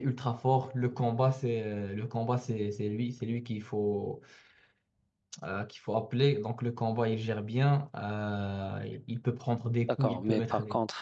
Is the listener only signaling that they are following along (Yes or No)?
No